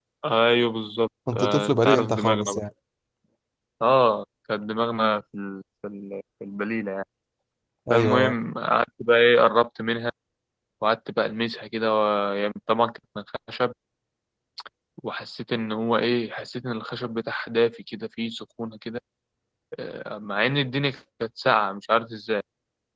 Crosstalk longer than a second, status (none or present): present